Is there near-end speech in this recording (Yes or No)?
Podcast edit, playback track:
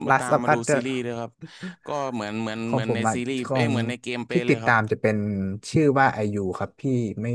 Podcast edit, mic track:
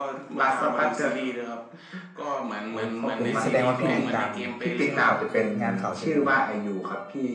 Yes